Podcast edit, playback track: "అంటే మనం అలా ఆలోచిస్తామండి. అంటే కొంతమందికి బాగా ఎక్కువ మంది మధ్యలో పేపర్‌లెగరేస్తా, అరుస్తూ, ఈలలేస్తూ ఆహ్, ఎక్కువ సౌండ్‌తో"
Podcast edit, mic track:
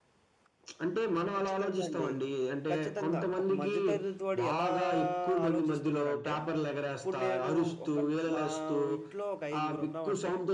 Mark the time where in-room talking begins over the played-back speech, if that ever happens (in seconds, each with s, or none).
1.4 s